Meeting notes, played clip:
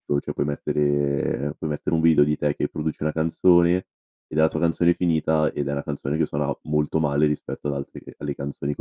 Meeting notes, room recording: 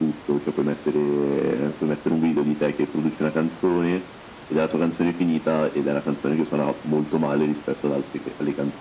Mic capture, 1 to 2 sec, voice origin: echo only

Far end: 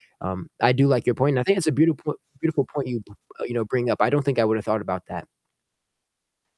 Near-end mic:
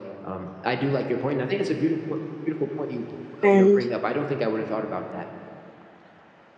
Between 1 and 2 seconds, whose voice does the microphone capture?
echo only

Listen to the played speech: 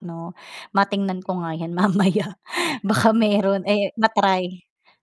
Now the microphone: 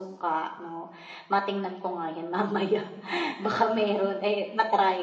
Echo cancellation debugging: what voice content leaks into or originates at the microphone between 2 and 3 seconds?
echo only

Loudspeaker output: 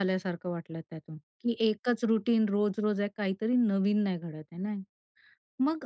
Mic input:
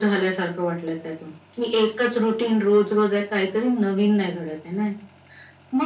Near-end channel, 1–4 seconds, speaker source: echo only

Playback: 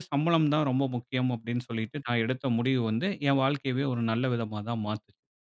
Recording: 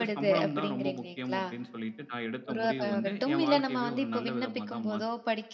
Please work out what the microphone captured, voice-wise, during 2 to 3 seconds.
both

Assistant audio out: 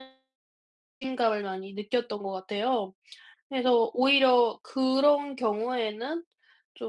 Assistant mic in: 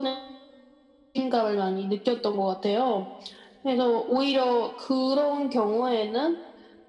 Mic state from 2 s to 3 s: echo only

